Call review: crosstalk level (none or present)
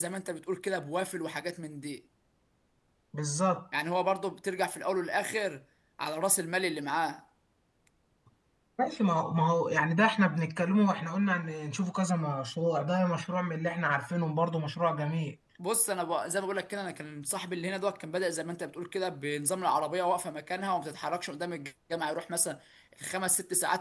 none